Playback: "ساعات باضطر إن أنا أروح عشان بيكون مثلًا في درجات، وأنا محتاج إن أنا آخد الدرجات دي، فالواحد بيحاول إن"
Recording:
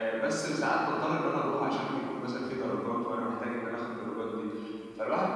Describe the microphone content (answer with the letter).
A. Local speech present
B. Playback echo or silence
B